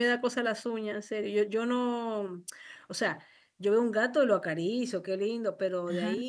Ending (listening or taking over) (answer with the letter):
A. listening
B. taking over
A